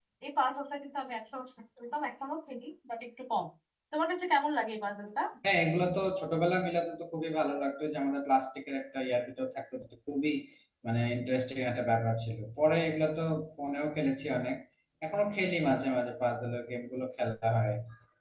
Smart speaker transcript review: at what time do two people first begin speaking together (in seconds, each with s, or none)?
none